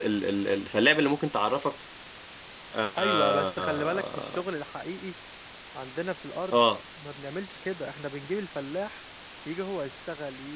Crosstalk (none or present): present